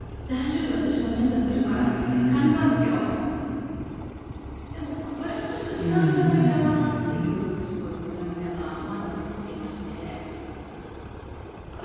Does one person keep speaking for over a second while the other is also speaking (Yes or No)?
Yes